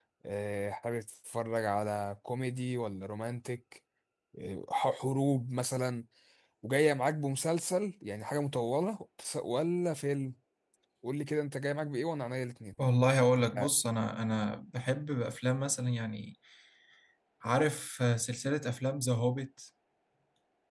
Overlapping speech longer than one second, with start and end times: none

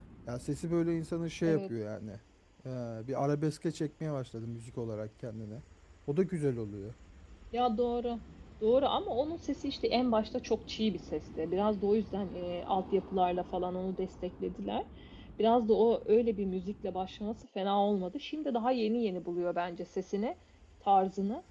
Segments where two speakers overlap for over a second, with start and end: none

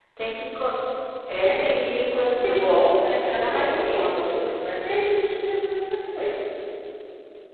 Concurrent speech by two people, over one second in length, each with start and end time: 2.3-4.4

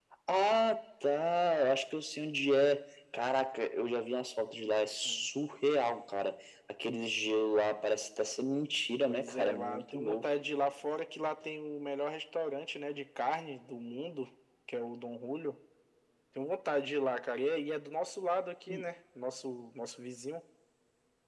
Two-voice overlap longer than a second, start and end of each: 9.0-10.2

